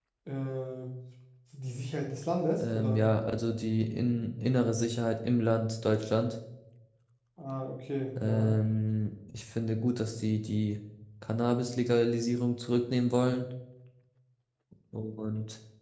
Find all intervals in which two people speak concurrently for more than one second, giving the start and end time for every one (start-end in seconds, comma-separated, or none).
none